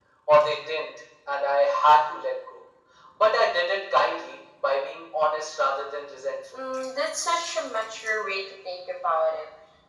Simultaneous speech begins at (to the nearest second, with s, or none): none